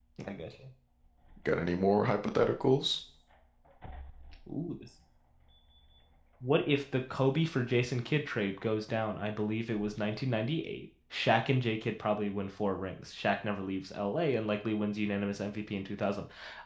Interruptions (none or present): none